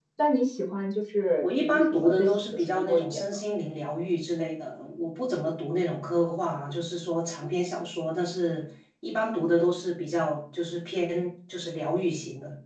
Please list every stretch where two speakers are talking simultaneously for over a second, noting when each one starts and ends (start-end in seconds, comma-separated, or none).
1.4-3.4